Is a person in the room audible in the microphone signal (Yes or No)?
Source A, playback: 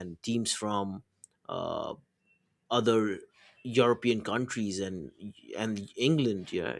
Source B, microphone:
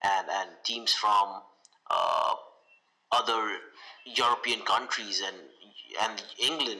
No